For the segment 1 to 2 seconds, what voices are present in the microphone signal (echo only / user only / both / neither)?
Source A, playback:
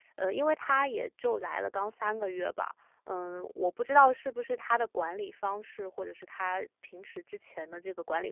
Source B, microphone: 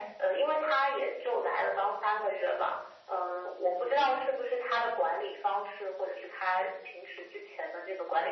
echo only